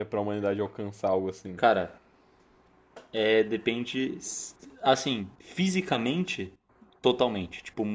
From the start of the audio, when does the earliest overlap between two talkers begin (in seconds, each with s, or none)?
none